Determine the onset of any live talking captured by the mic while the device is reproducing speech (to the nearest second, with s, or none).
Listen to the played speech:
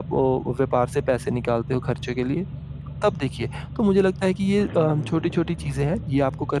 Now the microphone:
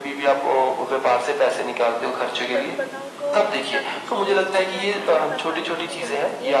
2 s